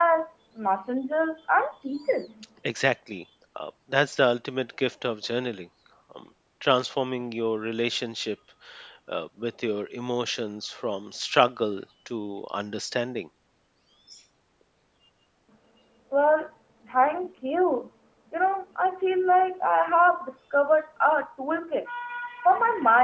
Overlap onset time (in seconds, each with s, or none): none